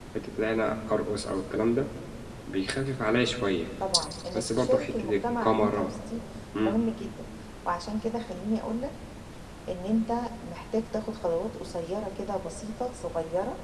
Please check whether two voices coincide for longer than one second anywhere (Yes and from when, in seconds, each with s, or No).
Yes, from 4.3 s